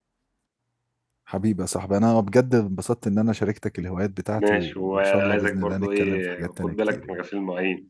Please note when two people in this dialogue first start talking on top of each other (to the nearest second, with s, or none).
4 s